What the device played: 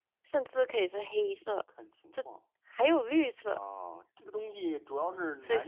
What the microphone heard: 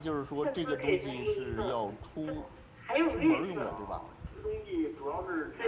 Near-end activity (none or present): present